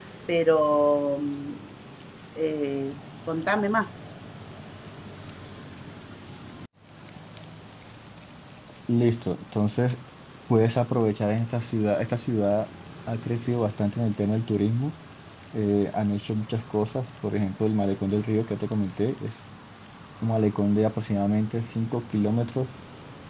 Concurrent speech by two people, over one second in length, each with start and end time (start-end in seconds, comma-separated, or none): none